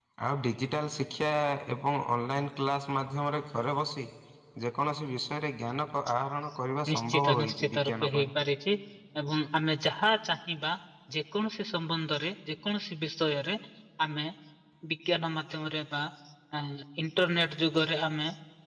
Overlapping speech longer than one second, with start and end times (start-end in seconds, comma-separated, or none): 6.9-8.3